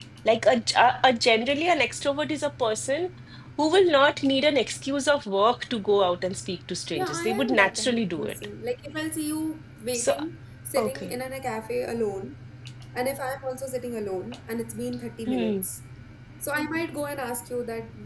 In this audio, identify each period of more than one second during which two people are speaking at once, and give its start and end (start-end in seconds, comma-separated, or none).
7.0-8.3